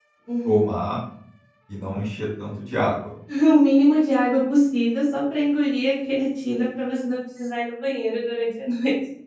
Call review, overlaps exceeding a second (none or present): none